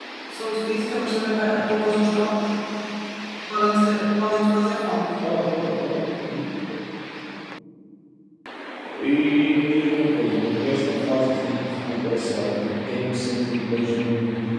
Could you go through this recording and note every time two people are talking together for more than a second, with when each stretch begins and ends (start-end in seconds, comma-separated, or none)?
none